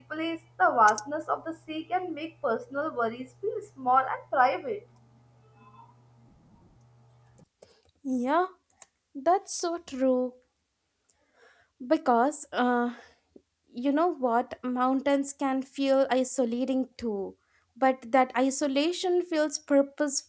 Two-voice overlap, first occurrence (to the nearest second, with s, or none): none